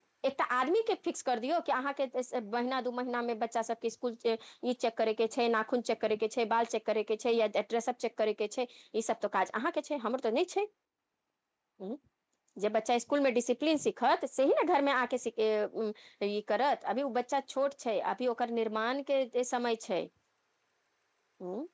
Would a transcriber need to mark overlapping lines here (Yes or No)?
No